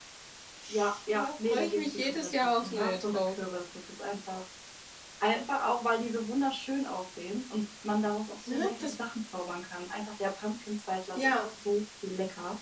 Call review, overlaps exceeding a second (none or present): present